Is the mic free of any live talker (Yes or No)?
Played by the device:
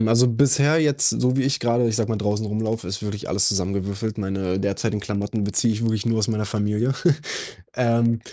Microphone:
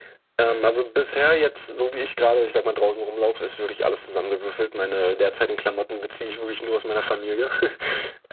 Yes